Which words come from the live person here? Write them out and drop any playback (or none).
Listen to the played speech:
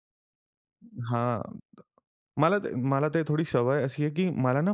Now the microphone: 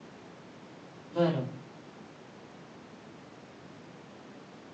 बरं.